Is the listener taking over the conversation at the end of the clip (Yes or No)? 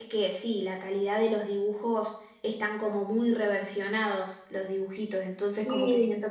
No